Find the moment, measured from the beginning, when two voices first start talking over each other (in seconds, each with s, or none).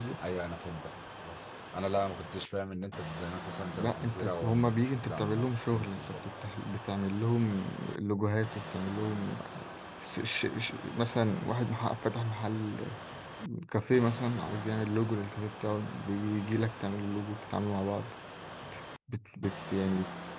3.7 s